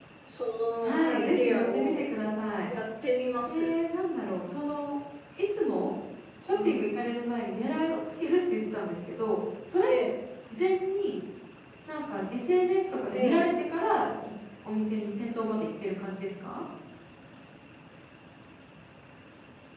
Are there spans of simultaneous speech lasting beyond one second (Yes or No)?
Yes